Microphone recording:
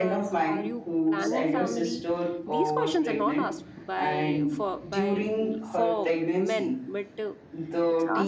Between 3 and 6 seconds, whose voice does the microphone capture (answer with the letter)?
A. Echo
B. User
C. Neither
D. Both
D